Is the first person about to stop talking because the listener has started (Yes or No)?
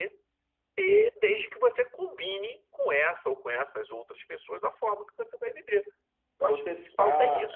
Yes